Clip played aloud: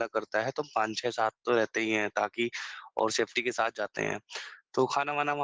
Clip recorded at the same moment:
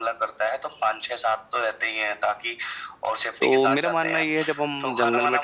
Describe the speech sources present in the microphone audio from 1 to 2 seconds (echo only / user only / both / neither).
echo only